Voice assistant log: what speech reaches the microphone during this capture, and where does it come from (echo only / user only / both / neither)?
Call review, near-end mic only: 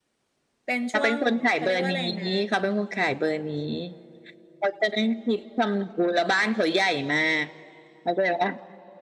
both